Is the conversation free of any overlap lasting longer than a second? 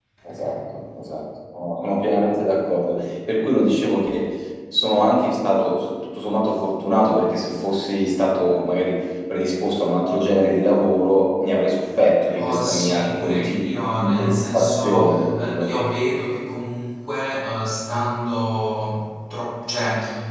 No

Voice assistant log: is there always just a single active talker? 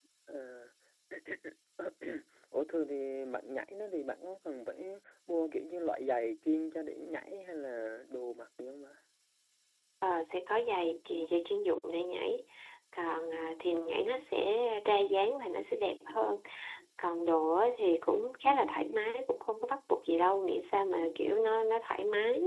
Yes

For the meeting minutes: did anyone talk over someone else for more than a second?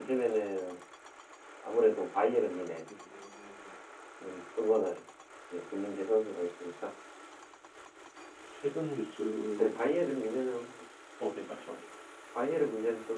No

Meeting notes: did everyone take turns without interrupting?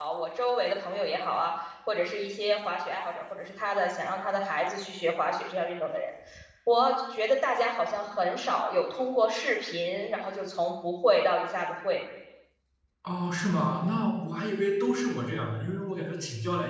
Yes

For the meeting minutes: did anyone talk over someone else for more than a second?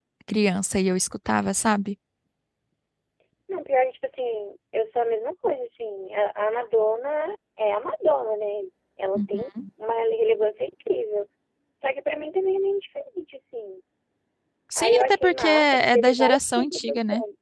Yes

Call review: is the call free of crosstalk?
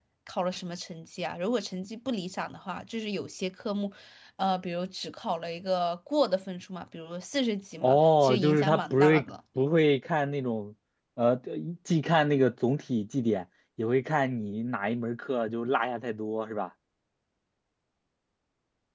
No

